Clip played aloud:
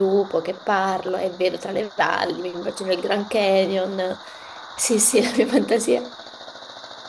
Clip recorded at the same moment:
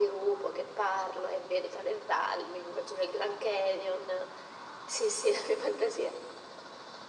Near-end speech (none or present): none